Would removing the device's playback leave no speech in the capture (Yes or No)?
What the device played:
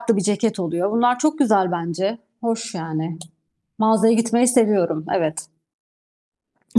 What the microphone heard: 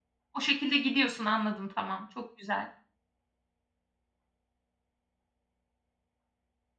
No